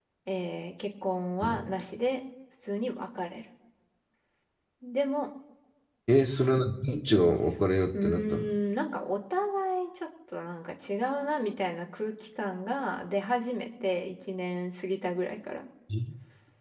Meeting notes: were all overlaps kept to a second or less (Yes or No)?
Yes